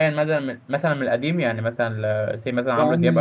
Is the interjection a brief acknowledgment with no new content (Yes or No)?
No